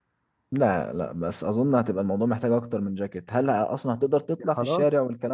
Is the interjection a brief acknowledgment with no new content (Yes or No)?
No